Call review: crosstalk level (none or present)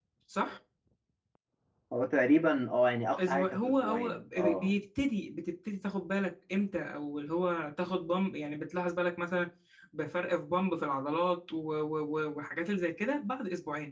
present